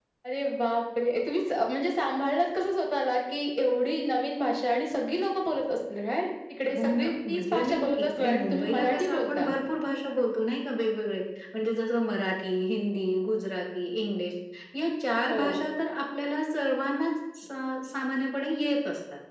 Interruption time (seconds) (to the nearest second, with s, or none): 7 s